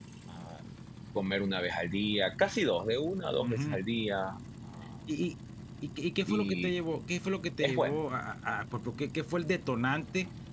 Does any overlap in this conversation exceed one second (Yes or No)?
No